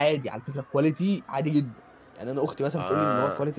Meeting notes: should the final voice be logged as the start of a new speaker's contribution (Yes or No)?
No